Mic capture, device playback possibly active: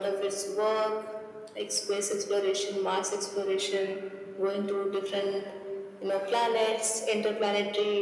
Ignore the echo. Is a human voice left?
No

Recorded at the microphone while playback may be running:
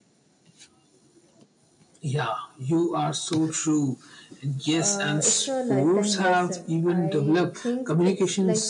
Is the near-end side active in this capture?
Yes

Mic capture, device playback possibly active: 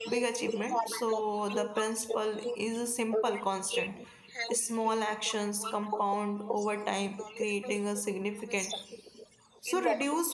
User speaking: Yes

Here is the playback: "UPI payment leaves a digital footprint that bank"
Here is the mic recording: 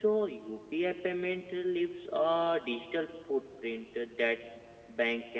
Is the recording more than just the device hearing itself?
No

